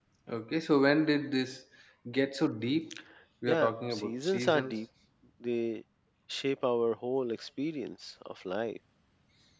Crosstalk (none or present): present